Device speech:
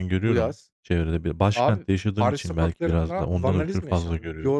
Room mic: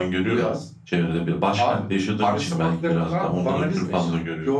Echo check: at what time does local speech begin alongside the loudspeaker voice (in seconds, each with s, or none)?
none